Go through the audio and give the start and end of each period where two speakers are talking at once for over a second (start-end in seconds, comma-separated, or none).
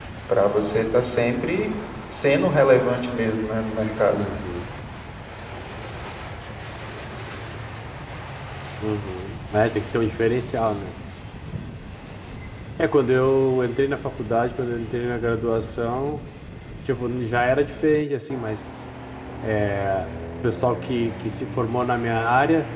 none